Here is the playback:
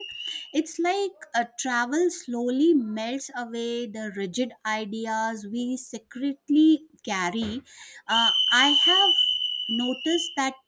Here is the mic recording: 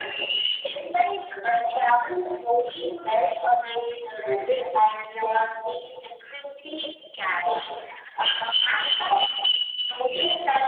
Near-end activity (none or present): none